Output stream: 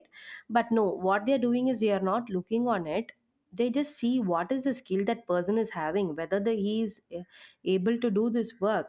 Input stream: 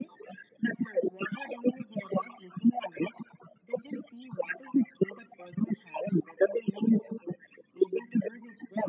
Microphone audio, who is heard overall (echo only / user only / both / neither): echo only